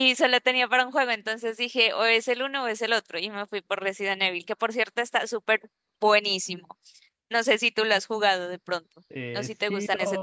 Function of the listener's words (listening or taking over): taking over